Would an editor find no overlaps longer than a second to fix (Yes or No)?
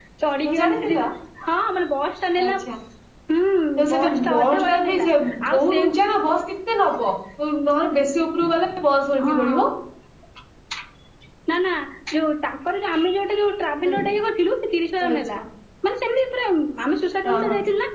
No